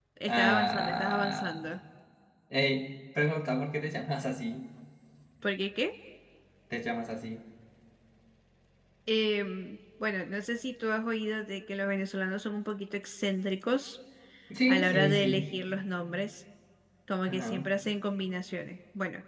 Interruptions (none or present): present